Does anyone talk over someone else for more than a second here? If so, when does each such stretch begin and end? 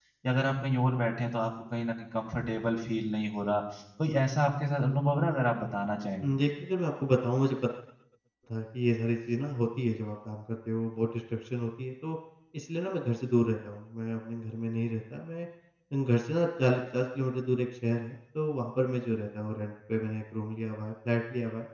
none

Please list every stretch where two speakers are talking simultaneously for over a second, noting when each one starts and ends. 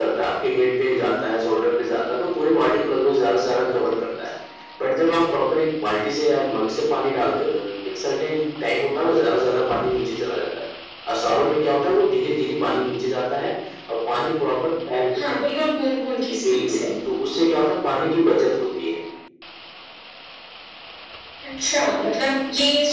none

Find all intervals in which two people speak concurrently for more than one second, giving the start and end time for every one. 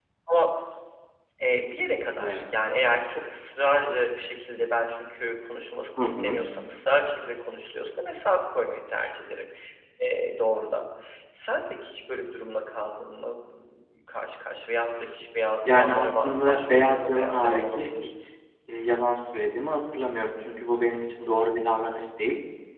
15.6-17.9

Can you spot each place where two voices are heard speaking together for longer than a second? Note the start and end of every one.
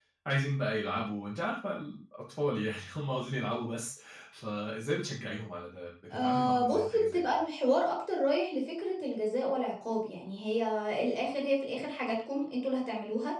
6.1-7.3

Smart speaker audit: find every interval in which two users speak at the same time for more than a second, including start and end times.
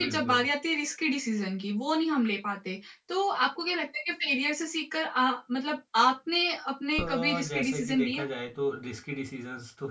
7.0-8.2

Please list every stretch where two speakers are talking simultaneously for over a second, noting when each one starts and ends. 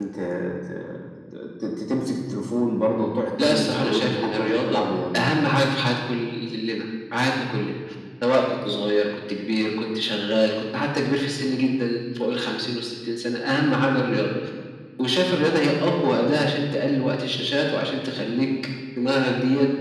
3.4-4.8

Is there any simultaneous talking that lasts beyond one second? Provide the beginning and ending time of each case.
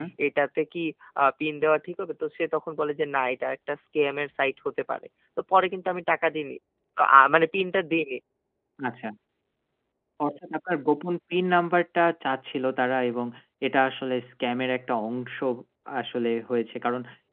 none

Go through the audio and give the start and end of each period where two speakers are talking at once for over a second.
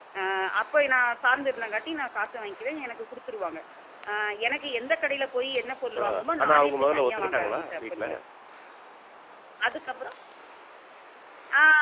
6.4-8.1

